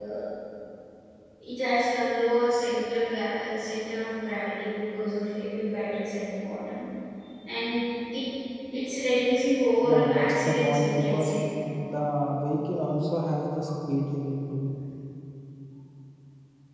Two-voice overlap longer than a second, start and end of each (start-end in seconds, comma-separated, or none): 9.8-11.4